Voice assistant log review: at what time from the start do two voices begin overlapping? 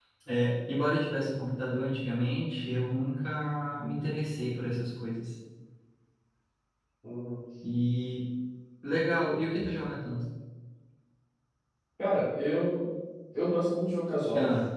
none

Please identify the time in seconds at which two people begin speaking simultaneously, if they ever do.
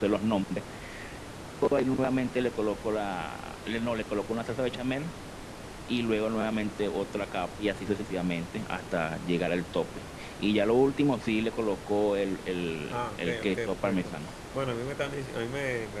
12.9 s

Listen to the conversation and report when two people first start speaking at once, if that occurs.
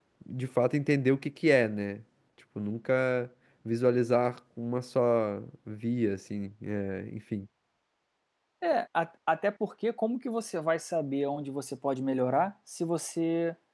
none

